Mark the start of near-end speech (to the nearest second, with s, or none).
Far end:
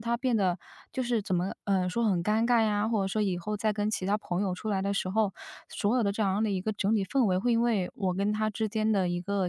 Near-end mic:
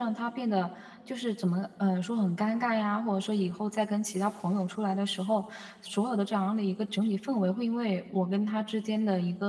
none